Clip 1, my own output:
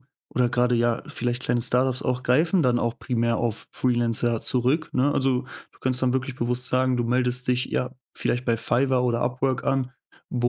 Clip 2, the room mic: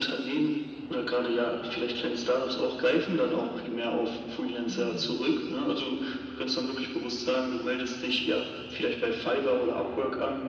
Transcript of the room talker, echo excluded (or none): Mhm.